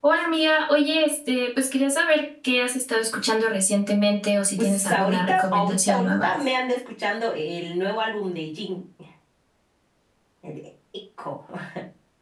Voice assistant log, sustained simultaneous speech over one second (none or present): present